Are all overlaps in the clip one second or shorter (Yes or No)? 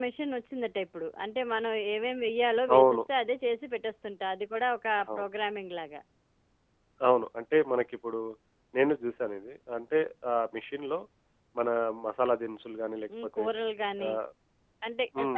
Yes